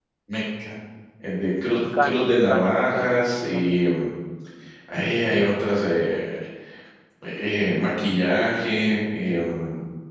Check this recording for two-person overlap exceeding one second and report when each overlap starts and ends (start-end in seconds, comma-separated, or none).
1.7-4.1